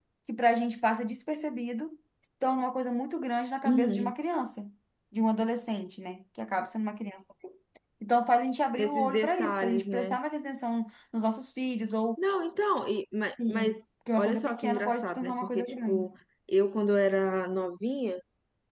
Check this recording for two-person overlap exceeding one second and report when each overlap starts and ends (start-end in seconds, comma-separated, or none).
8.8-10.2, 14.2-16.1